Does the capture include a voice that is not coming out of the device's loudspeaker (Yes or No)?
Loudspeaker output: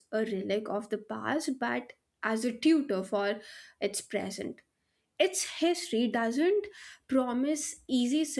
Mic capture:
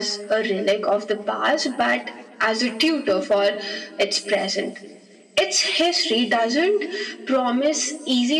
No